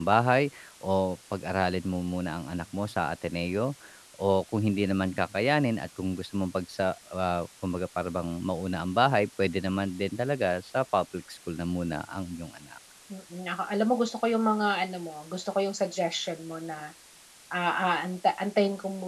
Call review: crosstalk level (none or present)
none